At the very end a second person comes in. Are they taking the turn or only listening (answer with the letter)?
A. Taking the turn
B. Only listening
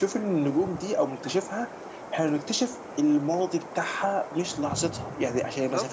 B